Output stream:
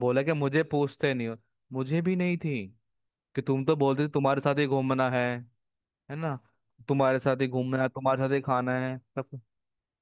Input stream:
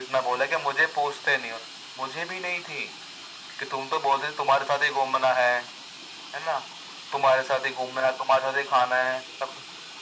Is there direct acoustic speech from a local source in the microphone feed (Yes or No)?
No